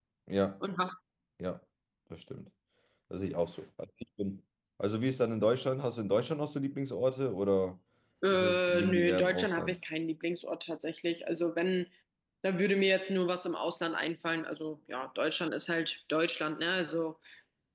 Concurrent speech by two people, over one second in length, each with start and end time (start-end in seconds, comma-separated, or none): 8.3-9.8